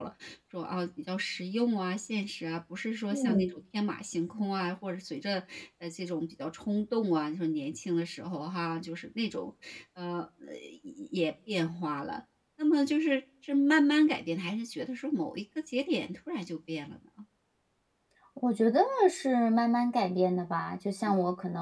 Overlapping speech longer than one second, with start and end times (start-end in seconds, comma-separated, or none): none